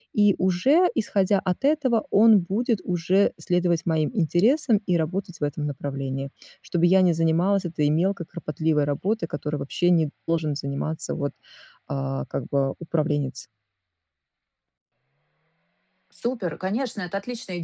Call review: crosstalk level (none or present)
none